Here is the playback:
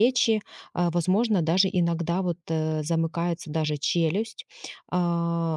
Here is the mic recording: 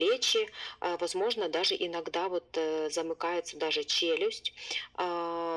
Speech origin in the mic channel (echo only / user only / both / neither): echo only